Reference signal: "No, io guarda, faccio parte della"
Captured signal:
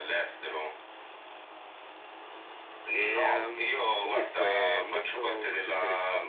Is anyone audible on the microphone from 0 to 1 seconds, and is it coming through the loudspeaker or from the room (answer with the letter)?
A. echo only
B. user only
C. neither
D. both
A